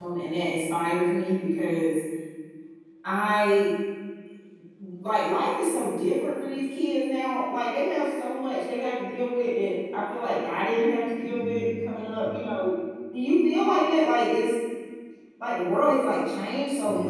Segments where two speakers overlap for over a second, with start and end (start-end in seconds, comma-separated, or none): 11.2-12.5